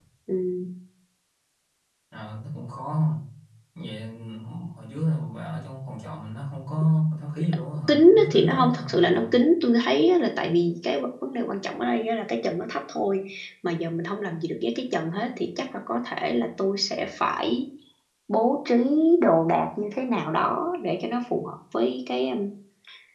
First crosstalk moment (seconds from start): 7.9 s

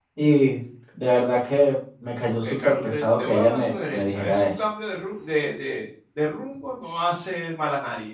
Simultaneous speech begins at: 2.4 s

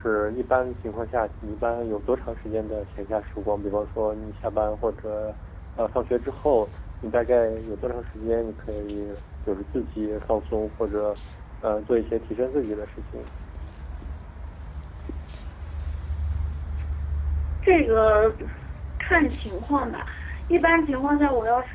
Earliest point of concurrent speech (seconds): none

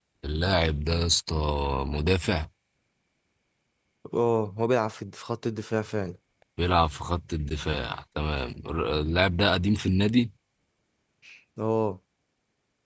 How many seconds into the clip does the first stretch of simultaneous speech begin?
none

